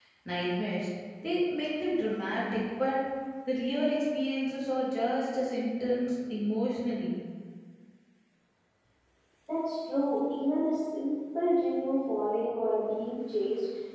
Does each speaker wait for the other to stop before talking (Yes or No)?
Yes